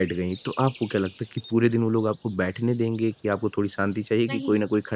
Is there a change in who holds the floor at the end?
No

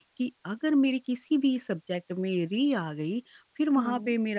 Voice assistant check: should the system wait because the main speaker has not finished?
Yes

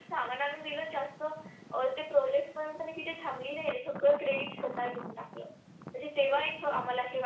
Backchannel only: Yes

